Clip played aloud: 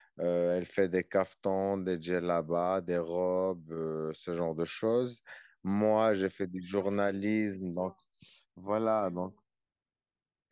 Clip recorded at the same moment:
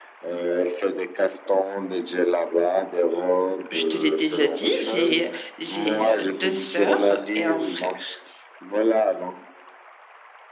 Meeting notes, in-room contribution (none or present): present